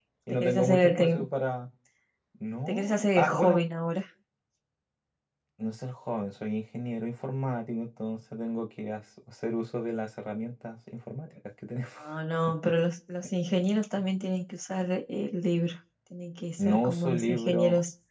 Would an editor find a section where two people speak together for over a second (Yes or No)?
Yes